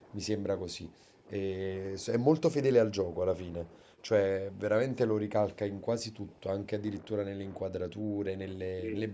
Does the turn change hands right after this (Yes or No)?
No